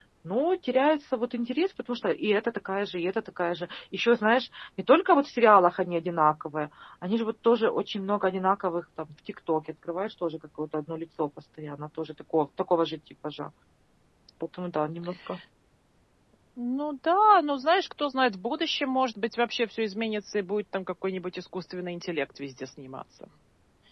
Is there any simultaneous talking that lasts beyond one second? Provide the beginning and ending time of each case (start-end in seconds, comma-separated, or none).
none